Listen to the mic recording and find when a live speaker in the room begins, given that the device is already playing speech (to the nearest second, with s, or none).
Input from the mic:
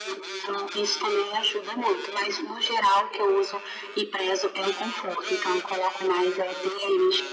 none